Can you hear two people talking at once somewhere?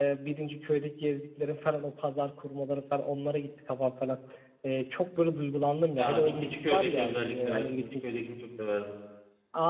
Yes, from 5.9 s

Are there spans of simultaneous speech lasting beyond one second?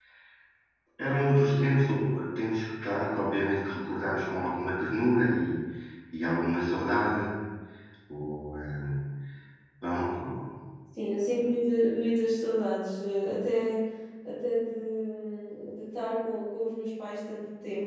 No

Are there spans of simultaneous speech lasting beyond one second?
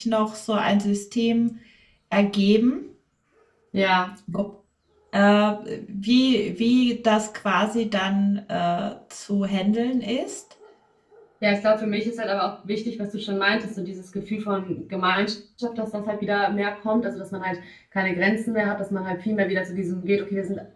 No

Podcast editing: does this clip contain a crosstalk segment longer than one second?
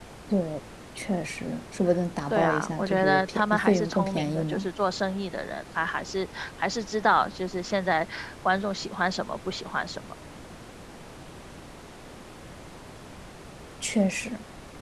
Yes, from 2.3 s

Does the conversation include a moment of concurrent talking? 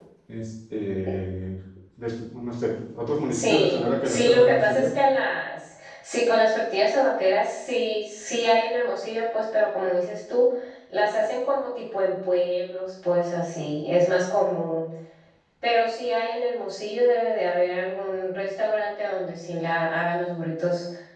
Yes, from 3.3 s

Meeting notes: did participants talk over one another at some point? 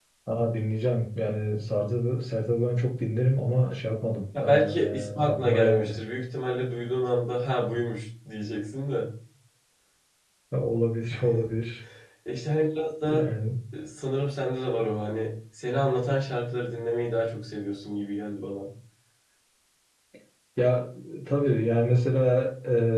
Yes, from 4.3 s

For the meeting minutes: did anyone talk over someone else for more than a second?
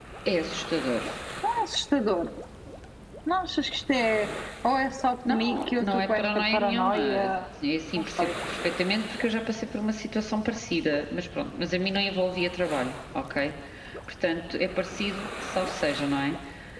Yes, from 5.3 s

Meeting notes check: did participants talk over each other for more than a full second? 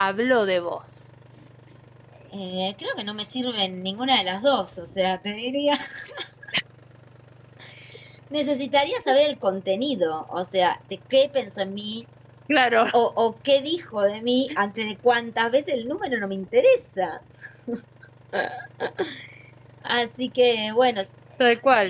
No

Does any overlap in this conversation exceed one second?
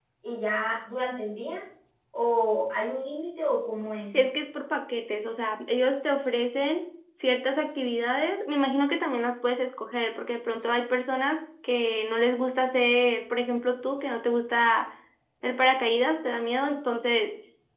No

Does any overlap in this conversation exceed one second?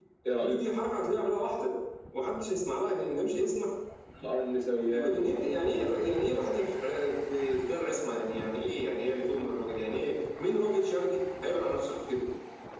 No

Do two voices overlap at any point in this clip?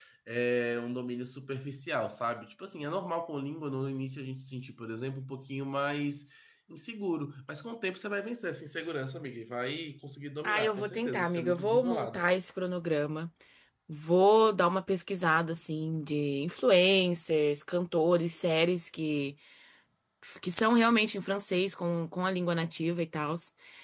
Yes, from 10.4 s

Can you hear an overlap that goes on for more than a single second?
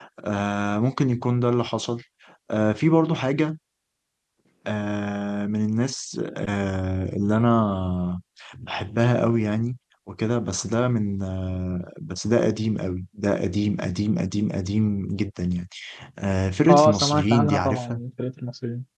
Yes, from 16.7 s

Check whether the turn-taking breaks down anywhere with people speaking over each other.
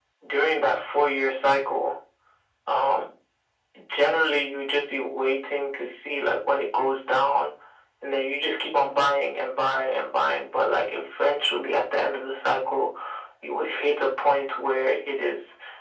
No

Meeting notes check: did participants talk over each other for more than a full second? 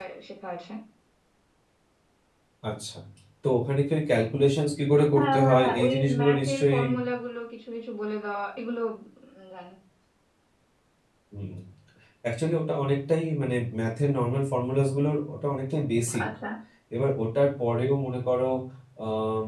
Yes, from 5.2 s

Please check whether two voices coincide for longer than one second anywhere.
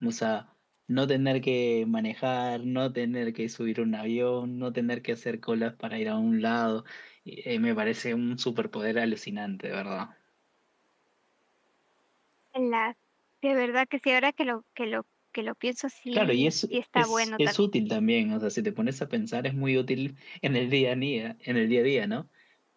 Yes, from 16.1 s

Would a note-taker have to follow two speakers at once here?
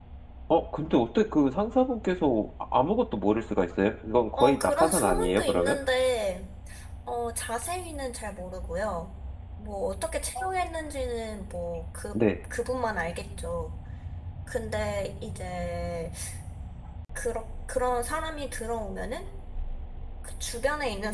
Yes, from 4.4 s

